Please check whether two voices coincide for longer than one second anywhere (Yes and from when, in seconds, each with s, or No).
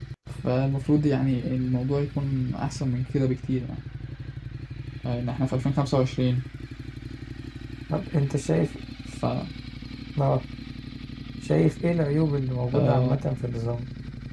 No